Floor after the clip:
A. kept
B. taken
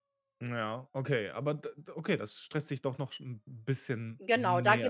B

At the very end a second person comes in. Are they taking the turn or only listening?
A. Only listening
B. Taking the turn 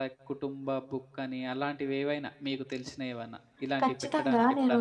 B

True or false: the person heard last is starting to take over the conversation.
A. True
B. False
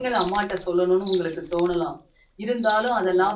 B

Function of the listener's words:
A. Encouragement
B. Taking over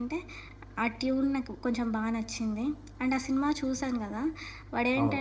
A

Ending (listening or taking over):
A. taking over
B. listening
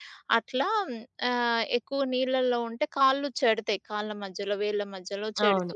B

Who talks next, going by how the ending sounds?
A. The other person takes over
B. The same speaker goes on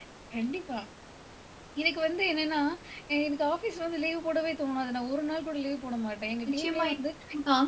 A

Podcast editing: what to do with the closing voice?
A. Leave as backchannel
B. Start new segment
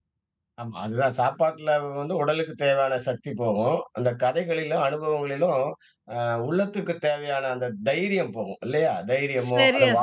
A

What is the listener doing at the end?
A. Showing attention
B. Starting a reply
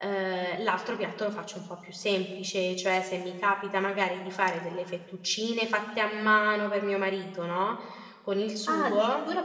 B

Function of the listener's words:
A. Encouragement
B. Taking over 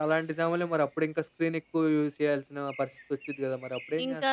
B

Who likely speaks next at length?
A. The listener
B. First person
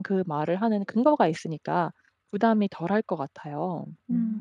A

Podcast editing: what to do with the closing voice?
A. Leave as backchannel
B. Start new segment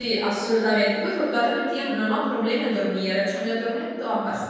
A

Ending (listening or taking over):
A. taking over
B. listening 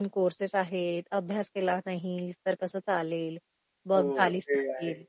A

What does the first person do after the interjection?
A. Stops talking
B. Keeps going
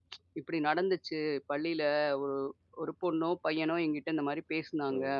A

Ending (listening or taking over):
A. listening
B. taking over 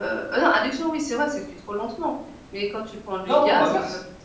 A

